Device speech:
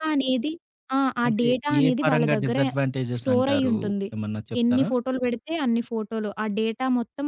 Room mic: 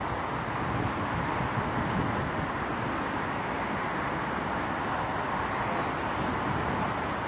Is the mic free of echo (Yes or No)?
Yes